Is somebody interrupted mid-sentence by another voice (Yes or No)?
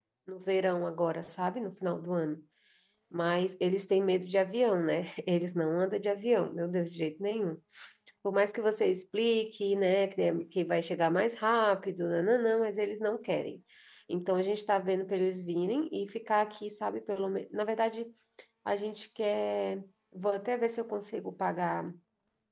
No